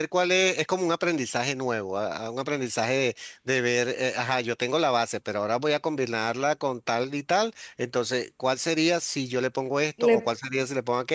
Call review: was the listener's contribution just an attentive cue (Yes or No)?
Yes